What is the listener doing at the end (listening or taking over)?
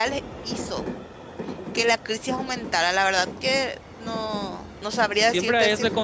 taking over